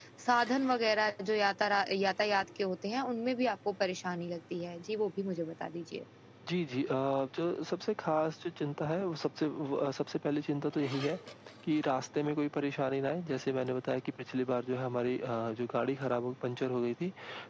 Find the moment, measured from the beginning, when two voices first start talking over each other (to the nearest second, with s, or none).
none